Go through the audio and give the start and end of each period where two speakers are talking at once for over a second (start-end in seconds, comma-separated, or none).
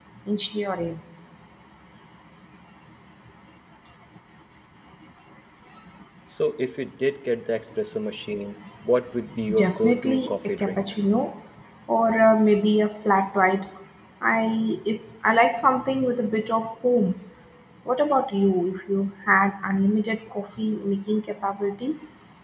9.6-10.8